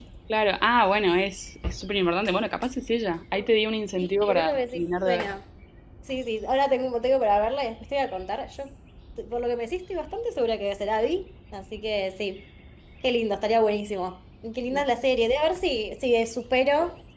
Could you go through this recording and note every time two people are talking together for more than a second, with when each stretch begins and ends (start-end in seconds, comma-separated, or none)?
4.0-5.3